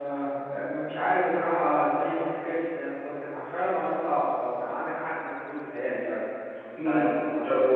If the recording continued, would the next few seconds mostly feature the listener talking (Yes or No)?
Yes